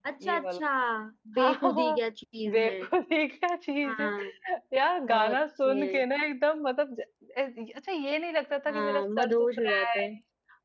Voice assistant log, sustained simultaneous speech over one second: present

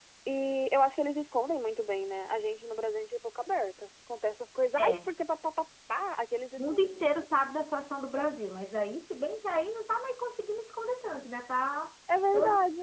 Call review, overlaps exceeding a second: none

